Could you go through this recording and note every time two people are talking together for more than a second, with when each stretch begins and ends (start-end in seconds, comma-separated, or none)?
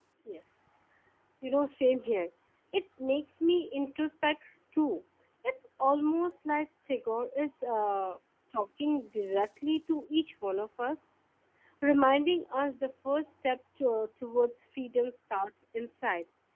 none